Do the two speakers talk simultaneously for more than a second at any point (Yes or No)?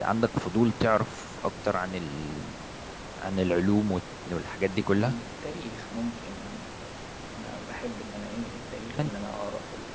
No